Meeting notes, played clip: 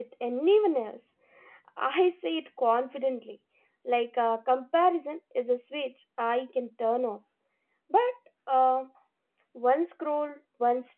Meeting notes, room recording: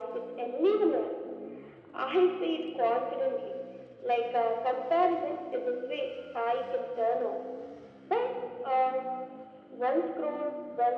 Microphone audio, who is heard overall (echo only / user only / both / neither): echo only